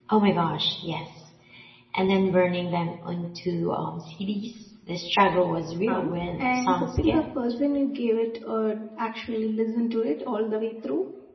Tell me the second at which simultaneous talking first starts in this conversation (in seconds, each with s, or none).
5.9 s